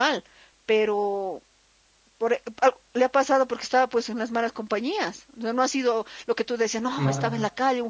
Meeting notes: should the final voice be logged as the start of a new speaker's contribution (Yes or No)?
No